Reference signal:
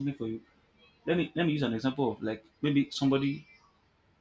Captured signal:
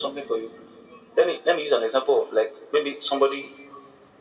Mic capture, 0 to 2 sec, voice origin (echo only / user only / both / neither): echo only